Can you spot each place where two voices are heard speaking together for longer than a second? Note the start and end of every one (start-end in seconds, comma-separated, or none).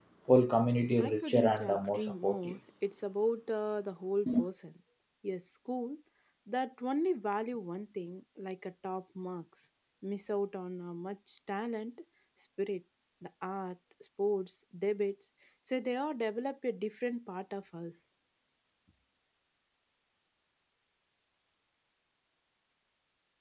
1.0-2.6